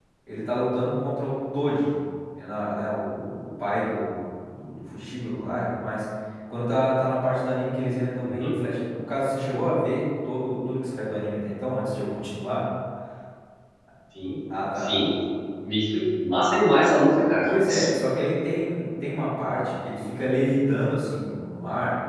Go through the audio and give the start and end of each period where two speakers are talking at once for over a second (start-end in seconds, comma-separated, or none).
none